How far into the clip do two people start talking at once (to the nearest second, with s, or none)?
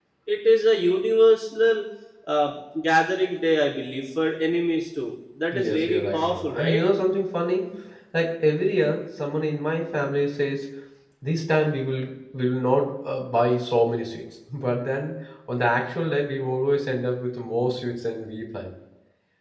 6 s